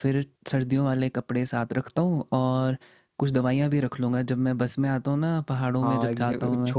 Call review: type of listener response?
taking over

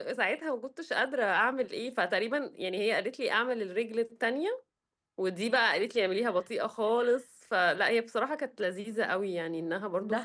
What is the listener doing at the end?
listening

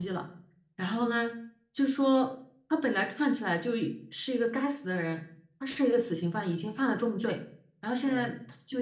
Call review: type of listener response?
listening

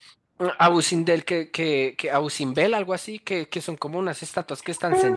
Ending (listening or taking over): taking over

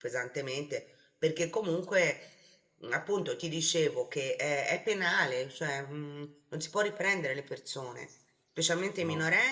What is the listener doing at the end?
listening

